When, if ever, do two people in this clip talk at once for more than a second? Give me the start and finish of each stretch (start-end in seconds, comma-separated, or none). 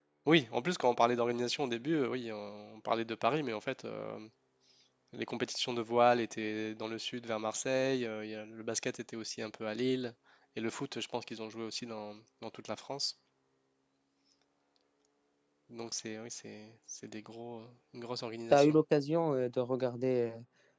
none